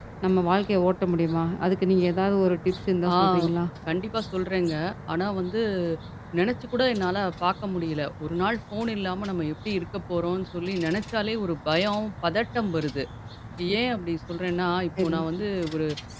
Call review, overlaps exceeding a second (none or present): none